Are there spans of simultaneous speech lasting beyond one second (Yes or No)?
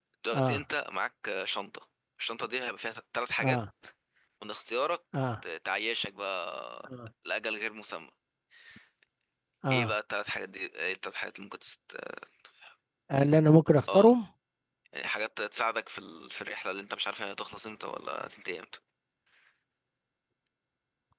No